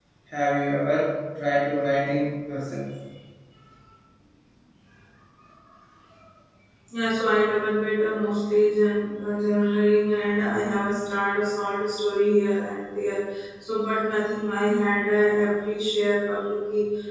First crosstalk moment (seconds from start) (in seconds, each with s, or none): none